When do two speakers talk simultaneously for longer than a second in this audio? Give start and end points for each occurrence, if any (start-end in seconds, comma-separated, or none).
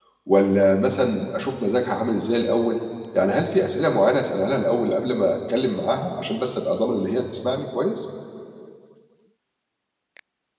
none